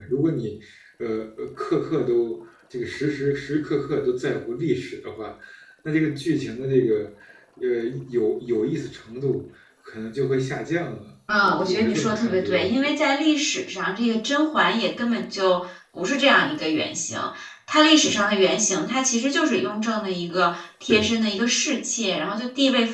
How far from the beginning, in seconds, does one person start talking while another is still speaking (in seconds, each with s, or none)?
11.4 s